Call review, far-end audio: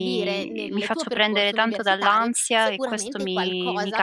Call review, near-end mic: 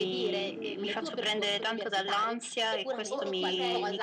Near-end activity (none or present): present